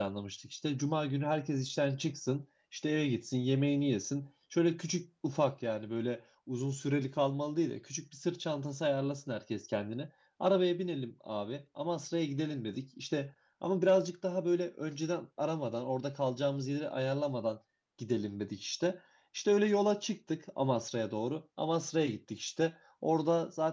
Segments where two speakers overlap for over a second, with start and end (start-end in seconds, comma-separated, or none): none